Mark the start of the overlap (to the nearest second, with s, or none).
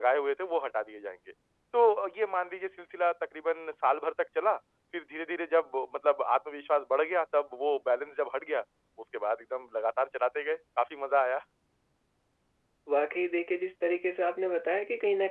none